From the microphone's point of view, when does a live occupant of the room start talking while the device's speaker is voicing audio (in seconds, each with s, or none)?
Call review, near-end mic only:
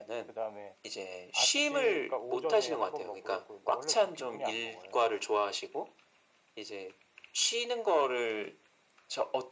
none